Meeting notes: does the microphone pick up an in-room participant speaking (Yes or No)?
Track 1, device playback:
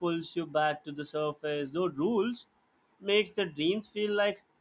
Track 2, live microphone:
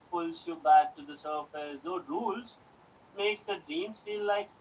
No